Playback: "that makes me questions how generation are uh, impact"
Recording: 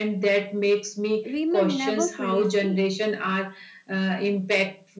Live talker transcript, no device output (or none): we may never fully see